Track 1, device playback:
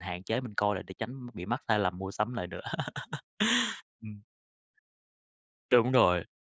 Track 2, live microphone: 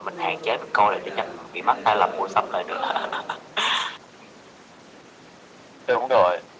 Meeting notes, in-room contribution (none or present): present